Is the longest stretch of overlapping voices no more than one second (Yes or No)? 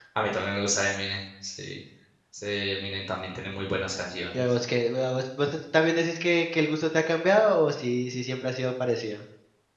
Yes